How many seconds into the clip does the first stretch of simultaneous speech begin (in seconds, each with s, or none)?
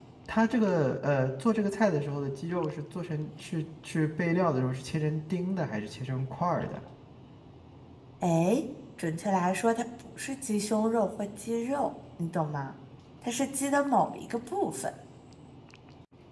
none